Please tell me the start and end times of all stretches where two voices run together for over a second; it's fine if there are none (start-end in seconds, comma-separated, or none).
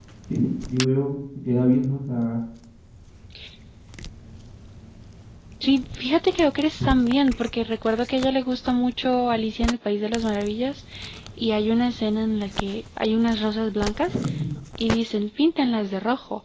none